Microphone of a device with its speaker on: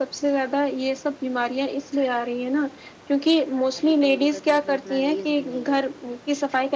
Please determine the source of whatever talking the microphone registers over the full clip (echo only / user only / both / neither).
both